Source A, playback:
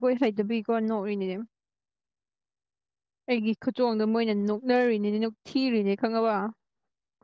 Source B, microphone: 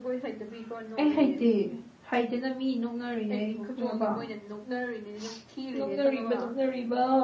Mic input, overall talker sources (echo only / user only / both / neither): both